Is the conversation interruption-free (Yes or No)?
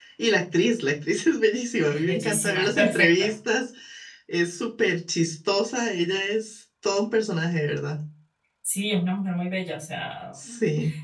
No